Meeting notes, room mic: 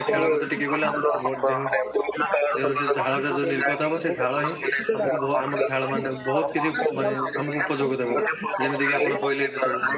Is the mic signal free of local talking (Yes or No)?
No